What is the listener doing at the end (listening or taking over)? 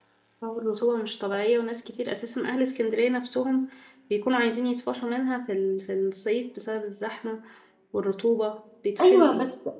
taking over